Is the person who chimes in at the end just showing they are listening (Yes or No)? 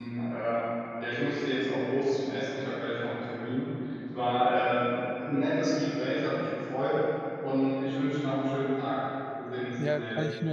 No